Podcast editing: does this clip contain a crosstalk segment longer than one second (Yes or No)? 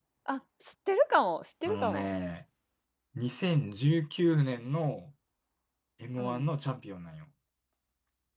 No